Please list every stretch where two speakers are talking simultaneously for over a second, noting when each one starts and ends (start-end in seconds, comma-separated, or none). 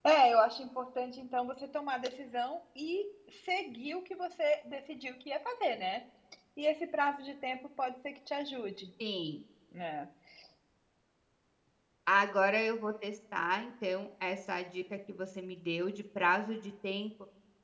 none